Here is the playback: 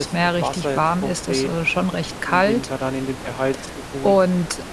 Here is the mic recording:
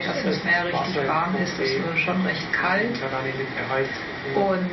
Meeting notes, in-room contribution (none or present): none